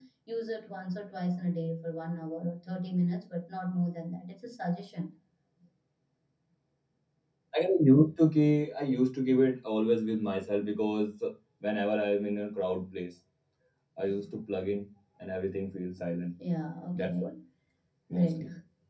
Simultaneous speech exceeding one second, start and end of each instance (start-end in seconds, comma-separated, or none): none